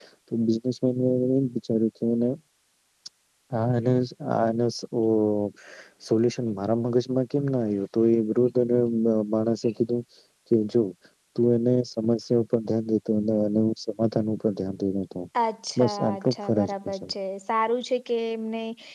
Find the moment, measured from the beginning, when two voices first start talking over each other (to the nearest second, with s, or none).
16 s